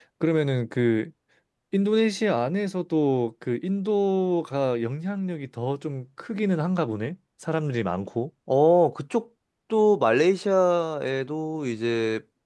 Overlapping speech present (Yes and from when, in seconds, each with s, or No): No